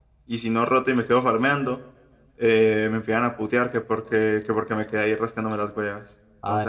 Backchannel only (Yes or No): No